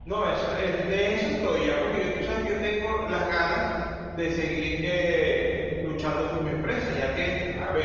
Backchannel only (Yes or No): Yes